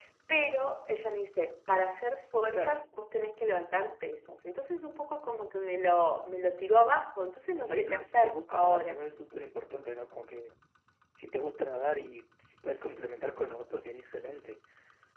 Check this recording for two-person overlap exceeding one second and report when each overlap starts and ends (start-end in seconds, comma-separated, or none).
7.6-9.1